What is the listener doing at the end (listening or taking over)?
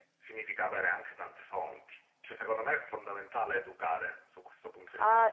taking over